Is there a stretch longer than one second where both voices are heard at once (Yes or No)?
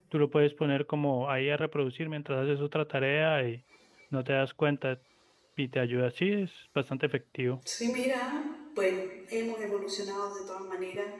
No